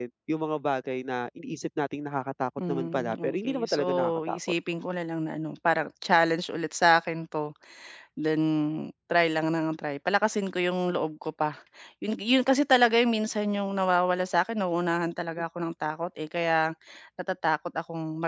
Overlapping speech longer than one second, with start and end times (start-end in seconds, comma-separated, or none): 2.7-4.4